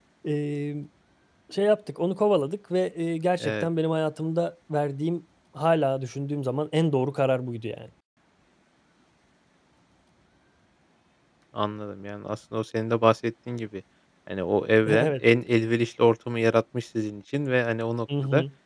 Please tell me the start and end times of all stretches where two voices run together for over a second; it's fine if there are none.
none

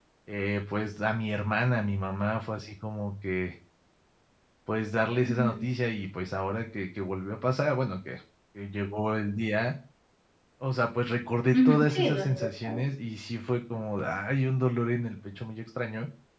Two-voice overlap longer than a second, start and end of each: 11.5-12.9

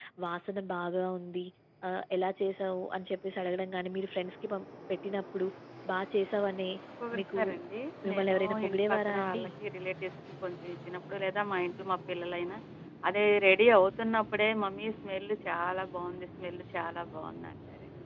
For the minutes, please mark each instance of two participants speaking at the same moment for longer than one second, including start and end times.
8.1-9.4

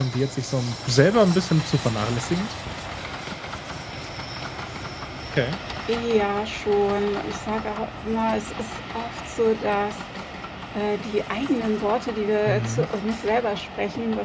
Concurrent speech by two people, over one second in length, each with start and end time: none

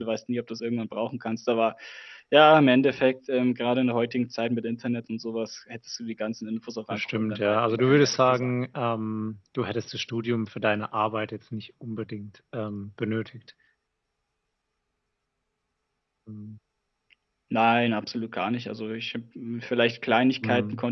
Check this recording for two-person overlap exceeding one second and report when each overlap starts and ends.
6.9-8.5

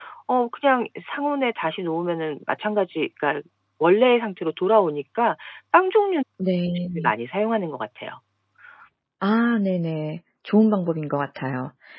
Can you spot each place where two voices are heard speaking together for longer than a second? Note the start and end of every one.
none

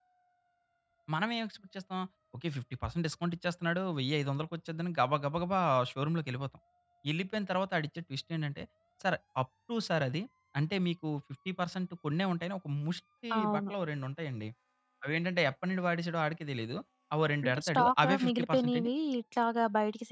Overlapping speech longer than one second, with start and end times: 17.4-18.9

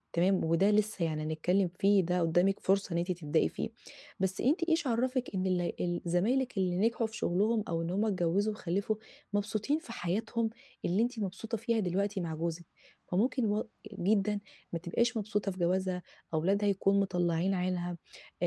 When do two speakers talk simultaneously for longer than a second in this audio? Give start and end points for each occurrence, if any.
none

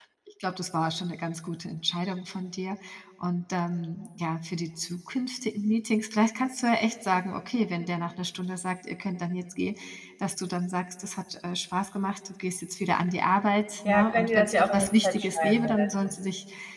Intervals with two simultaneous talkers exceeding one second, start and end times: 13.8-16.1

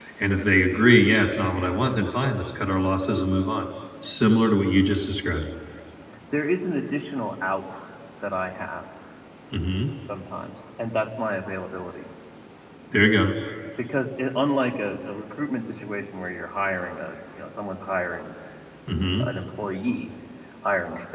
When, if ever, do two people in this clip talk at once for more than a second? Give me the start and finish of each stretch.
none

